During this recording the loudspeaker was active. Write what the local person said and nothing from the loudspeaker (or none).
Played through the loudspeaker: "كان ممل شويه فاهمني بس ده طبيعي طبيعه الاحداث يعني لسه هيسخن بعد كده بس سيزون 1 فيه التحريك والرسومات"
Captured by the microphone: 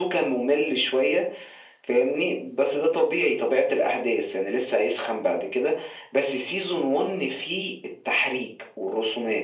none